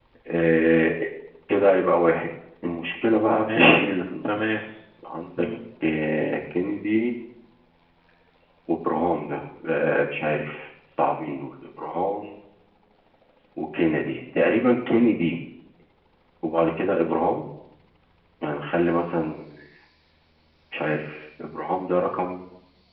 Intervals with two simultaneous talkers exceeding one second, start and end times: 3.0-4.3

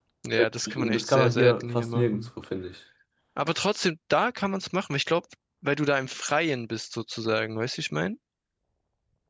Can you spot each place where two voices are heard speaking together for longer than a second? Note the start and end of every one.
0.7-2.2

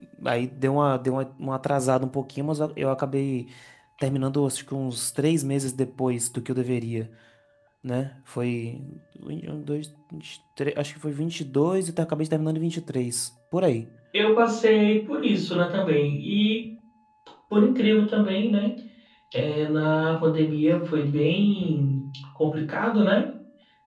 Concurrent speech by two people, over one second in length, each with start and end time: none

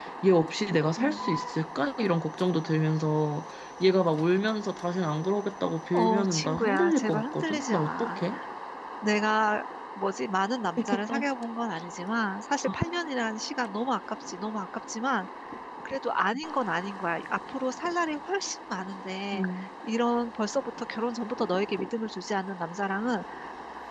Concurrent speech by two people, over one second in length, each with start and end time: 5.9-8.2

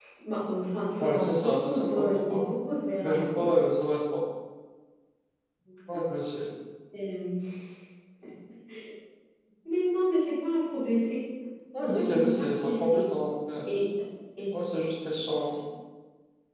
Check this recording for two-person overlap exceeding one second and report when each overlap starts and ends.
1.0-2.4, 11.8-13.1

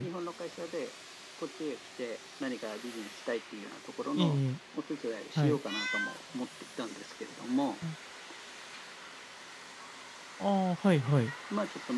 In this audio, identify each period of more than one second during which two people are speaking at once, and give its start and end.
none

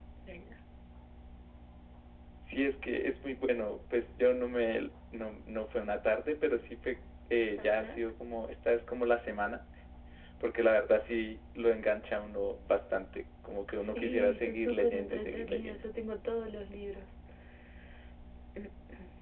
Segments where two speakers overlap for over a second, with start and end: 13.9-15.8

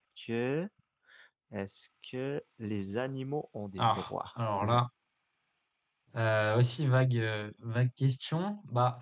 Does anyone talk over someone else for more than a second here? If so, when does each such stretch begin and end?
none

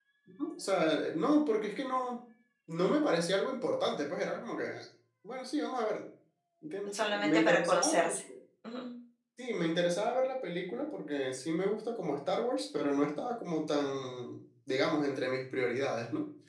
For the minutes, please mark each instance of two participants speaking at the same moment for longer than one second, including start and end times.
6.9-8.2

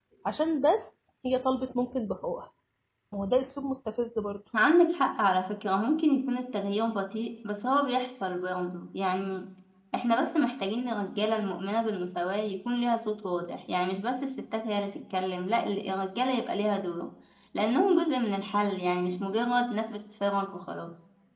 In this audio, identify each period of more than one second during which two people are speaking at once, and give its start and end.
none

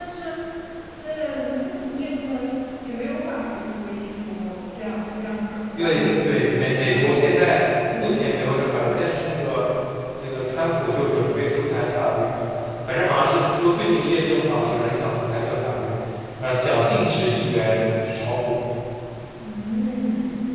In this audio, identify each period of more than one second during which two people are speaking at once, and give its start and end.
5.8-7.2

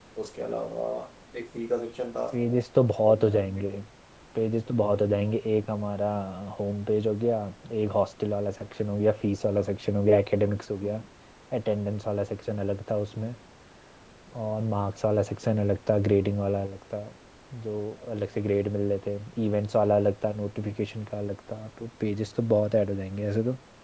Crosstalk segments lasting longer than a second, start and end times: none

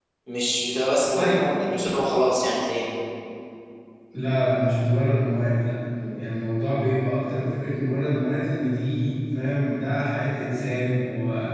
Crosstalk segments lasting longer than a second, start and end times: none

